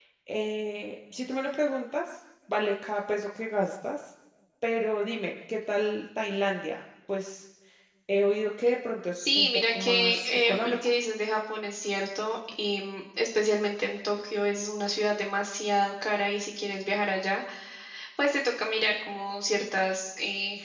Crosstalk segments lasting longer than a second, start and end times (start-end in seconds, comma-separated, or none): 9.2-10.8